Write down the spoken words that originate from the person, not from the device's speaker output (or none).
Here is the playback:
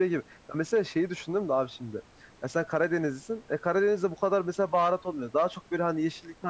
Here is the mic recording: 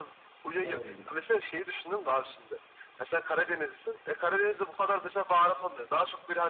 Doğru.